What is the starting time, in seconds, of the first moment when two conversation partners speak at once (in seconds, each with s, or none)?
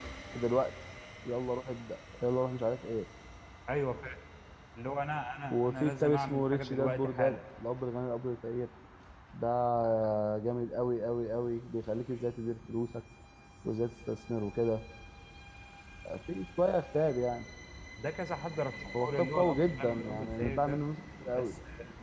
5.5 s